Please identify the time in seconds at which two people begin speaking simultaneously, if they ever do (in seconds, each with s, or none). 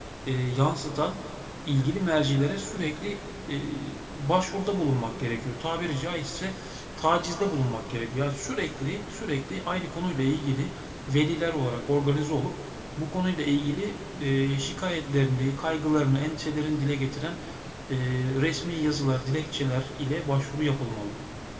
none